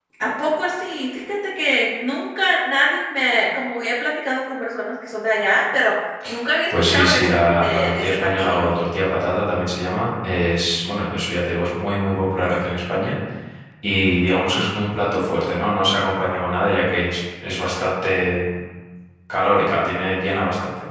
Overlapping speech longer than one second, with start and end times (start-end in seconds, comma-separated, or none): 6.8-8.7